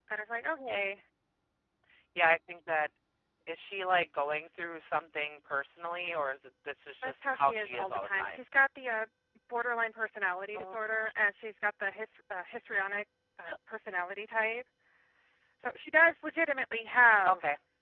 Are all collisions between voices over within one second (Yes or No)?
No